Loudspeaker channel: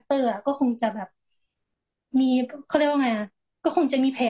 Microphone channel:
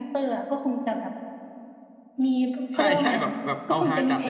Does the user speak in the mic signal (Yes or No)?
Yes